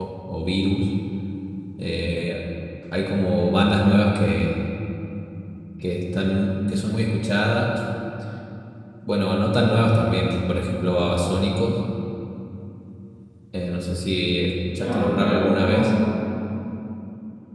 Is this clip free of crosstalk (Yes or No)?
No